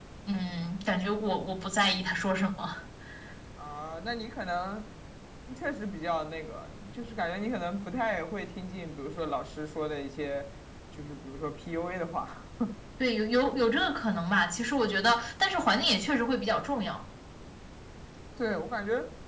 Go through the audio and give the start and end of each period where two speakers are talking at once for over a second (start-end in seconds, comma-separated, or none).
none